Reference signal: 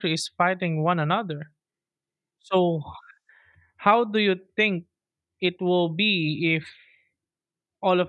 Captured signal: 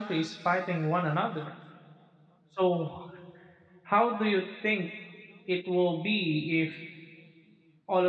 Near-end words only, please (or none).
none